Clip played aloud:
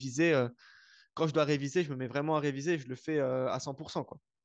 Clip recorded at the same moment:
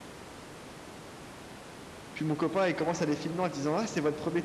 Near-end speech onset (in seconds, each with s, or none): 2.1 s